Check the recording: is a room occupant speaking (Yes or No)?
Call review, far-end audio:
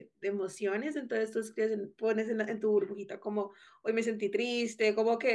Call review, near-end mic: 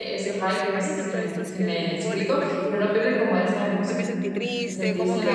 Yes